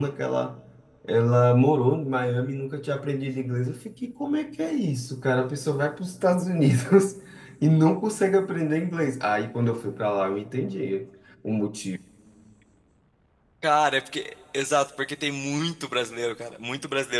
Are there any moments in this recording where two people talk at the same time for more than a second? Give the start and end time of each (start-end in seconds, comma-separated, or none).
none